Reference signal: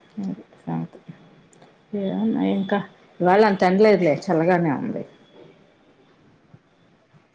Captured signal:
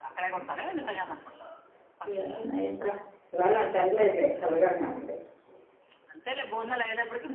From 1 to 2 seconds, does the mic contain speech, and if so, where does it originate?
both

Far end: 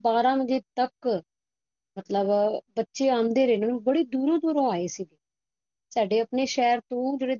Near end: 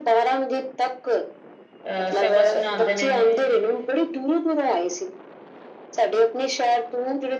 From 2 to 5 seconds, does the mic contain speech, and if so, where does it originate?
both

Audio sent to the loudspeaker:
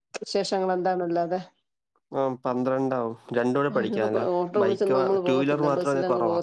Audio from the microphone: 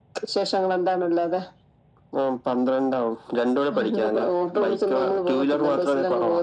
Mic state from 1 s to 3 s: echo only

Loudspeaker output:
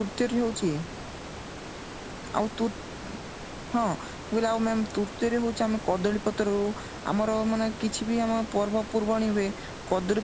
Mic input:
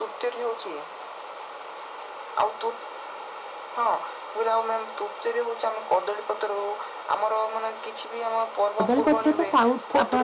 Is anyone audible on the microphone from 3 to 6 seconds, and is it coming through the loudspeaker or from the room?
echo only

